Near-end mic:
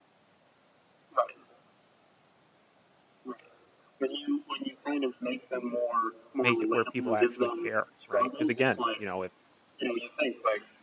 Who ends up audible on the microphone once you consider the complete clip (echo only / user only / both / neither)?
both